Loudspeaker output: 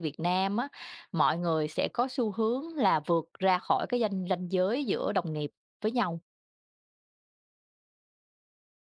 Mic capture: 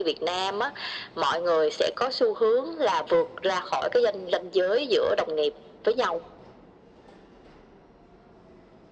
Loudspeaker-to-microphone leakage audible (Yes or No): Yes